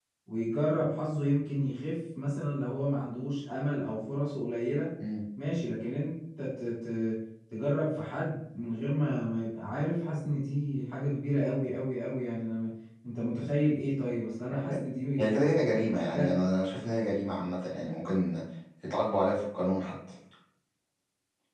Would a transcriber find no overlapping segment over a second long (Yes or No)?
Yes